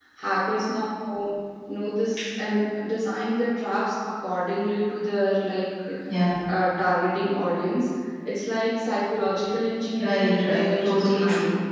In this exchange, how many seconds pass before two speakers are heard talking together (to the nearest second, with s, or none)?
10 s